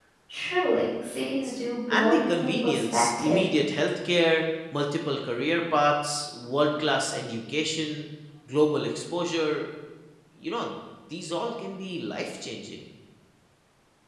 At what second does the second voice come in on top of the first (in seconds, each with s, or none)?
1.9 s